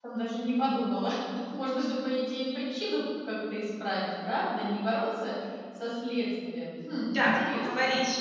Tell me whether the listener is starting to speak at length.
Yes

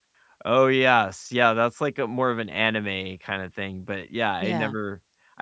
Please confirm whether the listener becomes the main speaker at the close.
No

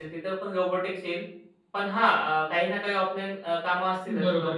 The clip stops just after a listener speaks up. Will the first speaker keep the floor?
No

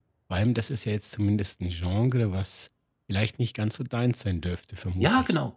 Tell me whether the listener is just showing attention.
No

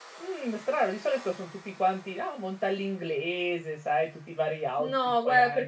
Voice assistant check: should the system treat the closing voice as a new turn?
Yes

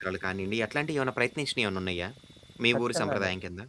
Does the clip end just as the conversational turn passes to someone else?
Yes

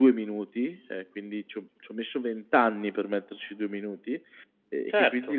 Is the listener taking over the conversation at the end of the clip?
No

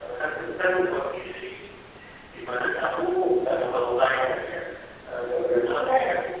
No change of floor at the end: Yes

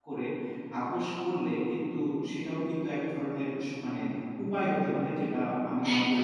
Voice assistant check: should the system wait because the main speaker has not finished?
No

